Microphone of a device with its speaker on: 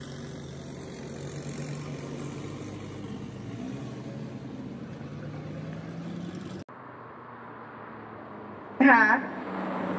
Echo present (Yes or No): No